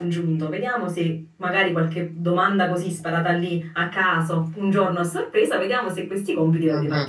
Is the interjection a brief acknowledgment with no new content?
Yes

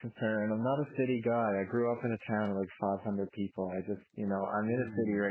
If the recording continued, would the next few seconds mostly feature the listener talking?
No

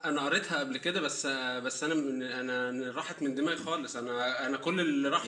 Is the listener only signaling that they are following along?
Yes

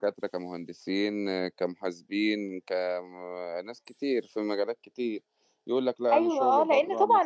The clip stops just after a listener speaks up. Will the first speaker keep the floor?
No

